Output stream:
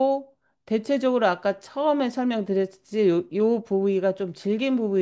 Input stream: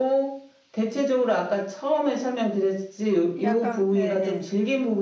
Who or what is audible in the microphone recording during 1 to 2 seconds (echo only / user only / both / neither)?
echo only